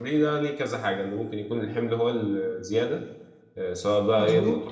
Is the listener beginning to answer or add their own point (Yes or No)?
No